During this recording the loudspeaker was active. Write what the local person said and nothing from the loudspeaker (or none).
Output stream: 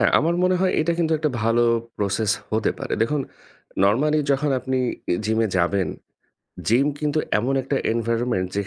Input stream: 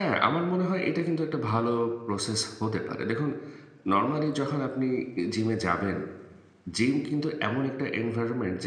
none